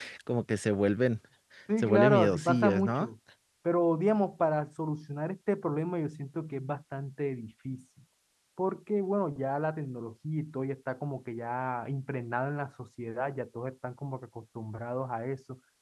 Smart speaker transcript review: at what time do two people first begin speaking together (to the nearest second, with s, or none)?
2 s